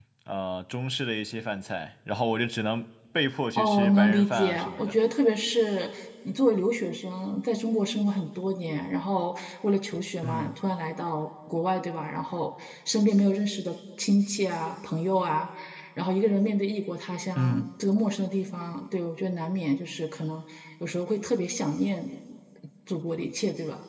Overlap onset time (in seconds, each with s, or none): 3.6 s